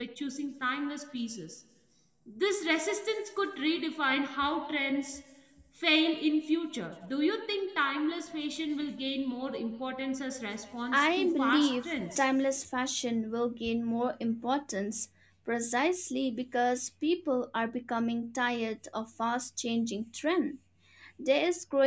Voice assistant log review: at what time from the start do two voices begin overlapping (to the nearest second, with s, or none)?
11 s